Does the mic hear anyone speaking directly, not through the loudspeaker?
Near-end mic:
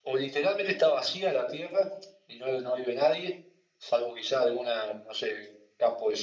No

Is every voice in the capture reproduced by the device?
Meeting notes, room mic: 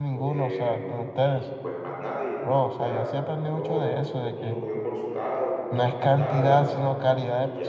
No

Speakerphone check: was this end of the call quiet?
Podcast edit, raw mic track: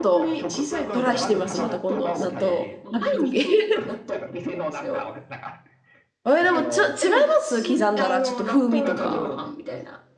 No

